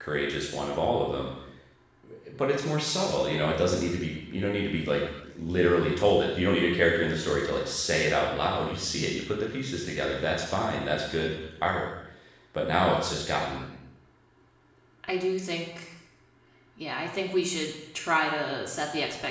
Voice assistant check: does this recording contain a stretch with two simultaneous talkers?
No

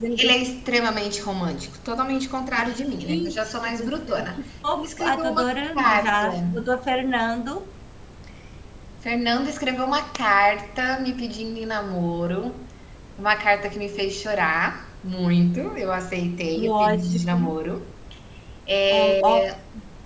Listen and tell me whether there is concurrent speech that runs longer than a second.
Yes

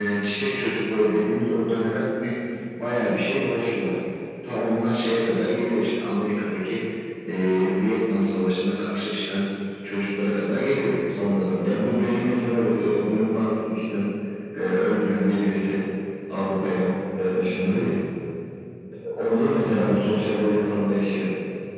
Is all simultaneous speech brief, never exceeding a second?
Yes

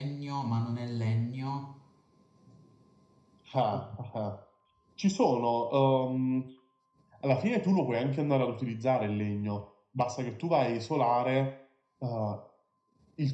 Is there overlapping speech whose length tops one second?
No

